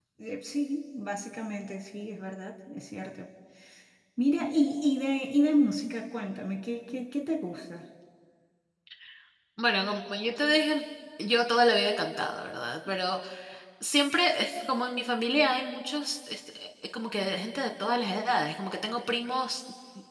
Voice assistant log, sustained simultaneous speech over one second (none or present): none